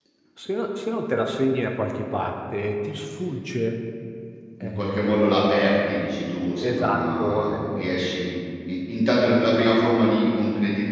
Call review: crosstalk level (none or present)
present